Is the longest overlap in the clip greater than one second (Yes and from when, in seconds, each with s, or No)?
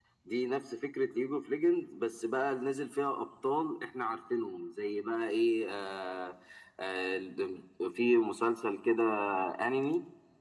No